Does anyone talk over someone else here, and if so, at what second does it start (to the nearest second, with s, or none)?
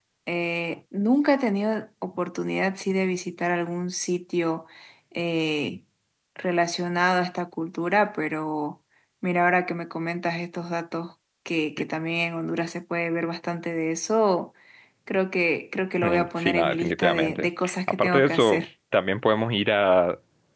16 s